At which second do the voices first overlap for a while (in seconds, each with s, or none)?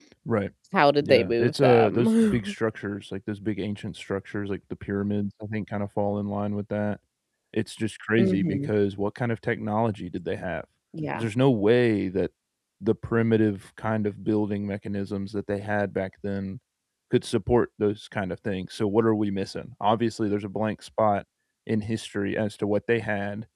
1.0 s